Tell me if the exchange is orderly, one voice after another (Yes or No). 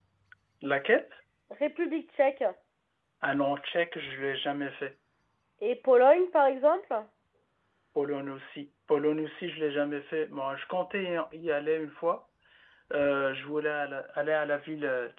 Yes